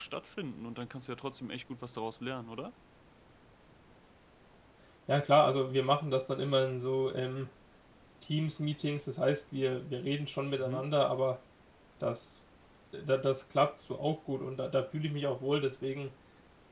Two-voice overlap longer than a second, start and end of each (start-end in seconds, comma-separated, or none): none